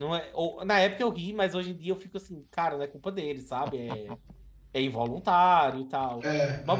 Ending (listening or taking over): listening